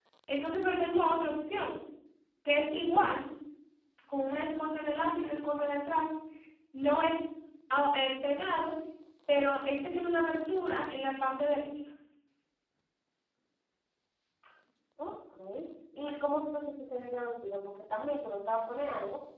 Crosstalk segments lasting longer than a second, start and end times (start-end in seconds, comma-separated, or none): none